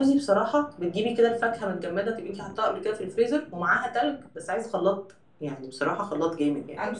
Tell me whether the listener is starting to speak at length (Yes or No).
No